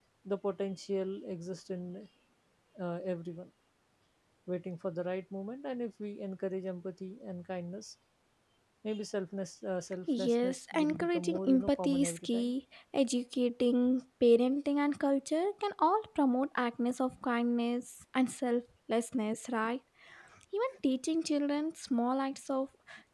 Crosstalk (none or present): present